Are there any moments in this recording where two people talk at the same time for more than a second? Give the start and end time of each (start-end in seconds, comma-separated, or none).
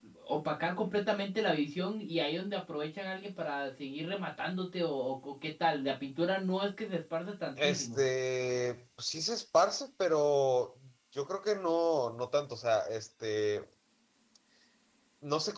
none